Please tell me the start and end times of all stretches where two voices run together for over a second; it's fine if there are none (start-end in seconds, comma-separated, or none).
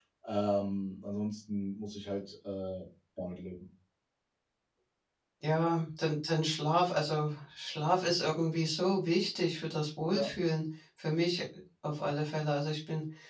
none